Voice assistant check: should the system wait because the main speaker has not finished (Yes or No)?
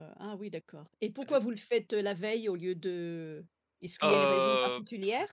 No